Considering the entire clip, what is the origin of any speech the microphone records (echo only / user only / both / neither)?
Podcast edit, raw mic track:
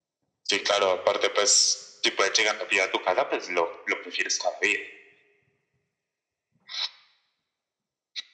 echo only